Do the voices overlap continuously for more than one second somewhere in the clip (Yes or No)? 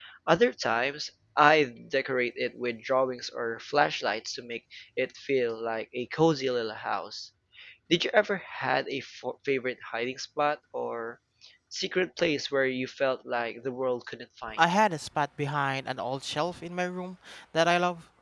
No